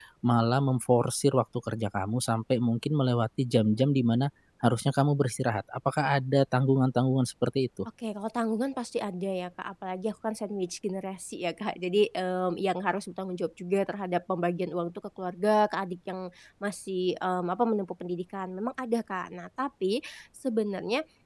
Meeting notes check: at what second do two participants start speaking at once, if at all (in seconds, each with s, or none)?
none